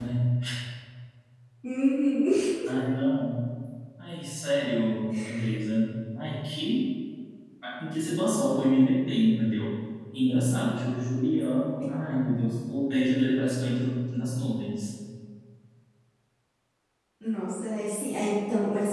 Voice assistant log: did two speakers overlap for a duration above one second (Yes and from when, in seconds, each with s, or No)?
No